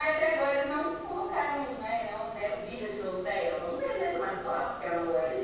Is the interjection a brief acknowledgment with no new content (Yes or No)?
No